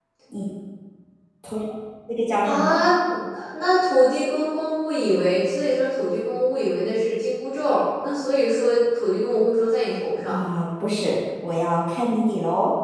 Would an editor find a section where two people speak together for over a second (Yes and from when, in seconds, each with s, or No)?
No